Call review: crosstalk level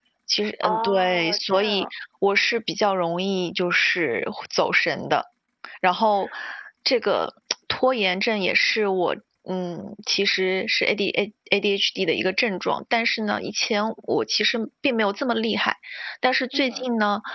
present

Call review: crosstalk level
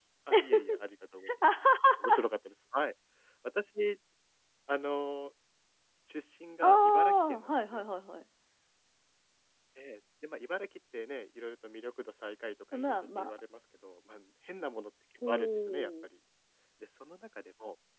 present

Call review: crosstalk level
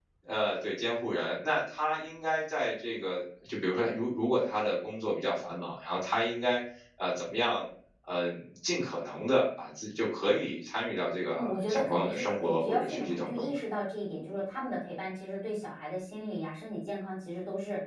present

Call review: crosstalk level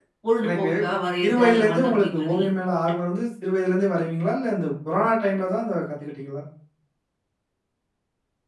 present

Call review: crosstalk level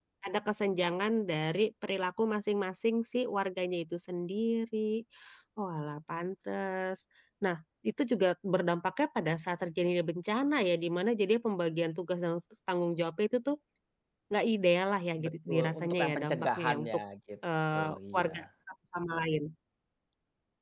present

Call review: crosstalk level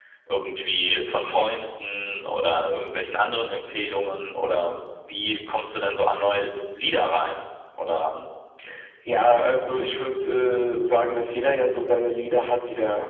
none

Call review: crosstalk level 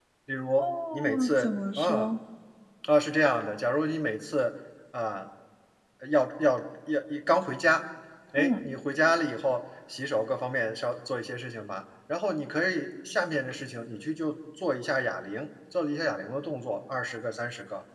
present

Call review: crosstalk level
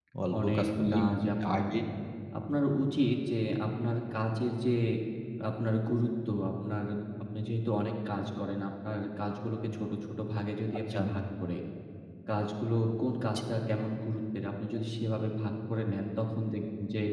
present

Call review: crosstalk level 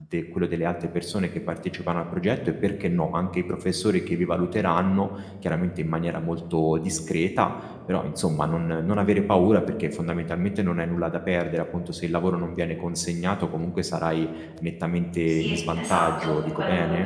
present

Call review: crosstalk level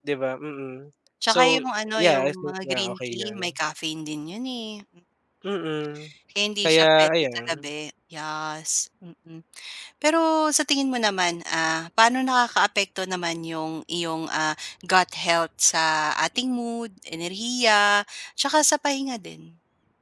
present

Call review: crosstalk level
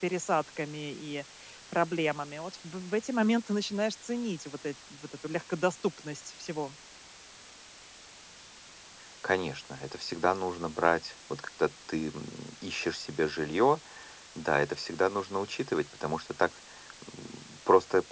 none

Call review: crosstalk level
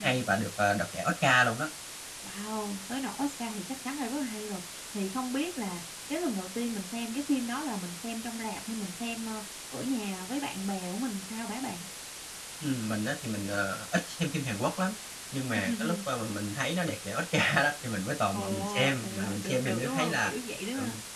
present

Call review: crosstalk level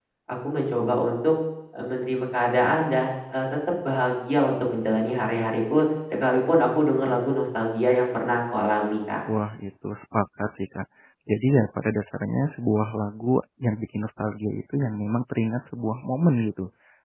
none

